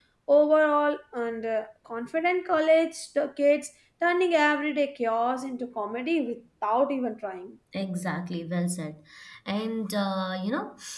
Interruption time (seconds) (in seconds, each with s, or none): none